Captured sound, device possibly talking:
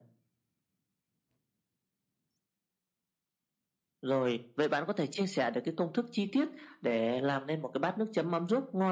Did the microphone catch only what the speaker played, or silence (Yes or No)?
Yes